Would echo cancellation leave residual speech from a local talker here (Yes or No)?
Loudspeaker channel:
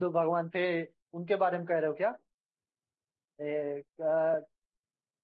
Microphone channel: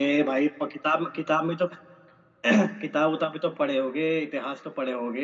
Yes